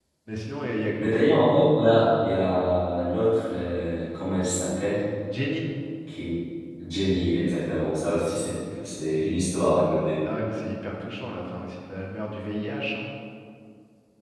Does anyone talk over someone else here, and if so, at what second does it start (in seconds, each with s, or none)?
none